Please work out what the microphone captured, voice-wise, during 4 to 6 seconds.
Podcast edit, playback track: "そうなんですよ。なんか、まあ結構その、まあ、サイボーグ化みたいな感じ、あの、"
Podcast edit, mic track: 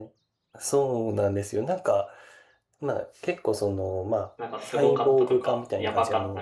both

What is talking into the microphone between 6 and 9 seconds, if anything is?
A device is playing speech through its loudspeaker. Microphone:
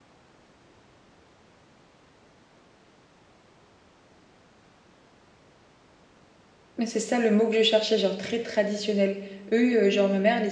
user only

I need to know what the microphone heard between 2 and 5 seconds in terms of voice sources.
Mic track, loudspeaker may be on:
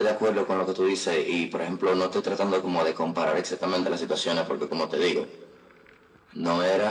echo only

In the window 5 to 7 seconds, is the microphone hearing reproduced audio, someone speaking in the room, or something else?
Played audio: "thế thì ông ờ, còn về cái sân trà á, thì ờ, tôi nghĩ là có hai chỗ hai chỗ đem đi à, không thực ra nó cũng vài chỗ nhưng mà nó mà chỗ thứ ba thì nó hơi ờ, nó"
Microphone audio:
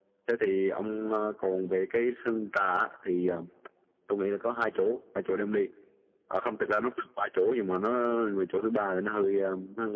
echo only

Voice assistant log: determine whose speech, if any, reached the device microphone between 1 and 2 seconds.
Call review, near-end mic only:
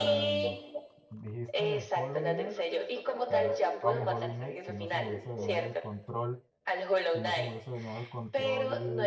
both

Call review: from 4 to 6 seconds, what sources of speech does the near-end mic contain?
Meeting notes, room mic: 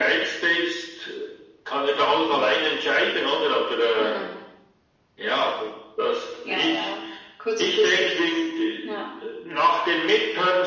echo only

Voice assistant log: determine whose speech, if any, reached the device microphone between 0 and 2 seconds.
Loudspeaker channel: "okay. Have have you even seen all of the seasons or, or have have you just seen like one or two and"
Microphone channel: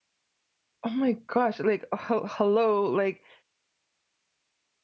user only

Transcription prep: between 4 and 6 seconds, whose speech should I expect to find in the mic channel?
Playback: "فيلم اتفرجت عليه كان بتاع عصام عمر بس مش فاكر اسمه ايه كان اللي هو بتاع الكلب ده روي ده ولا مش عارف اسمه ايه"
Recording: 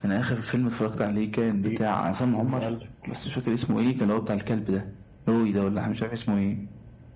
echo only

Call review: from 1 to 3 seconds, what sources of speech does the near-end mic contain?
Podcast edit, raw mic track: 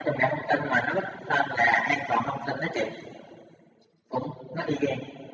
echo only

